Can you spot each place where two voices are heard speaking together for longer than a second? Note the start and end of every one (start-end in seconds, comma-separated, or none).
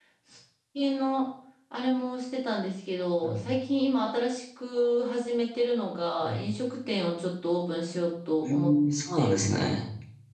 none